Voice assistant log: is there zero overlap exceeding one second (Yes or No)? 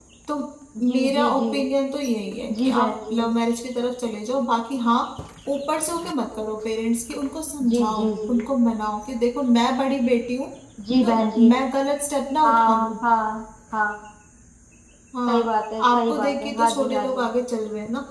No